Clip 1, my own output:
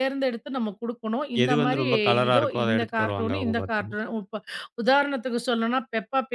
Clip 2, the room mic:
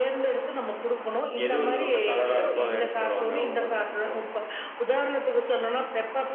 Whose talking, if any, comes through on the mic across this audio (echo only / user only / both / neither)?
echo only